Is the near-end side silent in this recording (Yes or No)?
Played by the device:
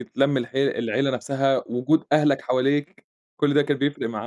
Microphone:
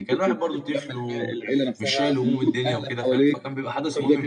No